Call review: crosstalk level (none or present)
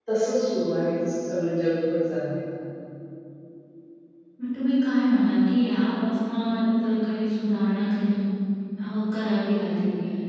none